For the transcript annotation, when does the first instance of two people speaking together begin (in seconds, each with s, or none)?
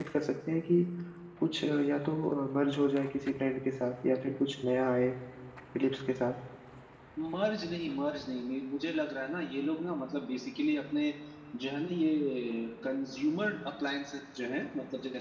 none